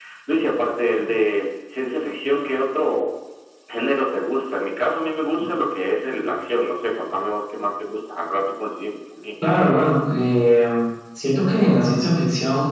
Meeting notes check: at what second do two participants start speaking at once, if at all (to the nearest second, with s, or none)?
none